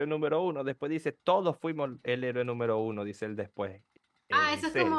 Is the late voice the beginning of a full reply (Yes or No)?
Yes